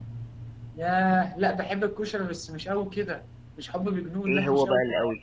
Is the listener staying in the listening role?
No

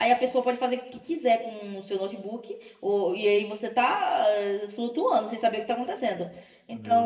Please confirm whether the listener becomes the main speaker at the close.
No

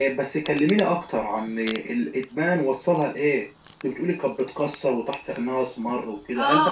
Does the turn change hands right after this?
Yes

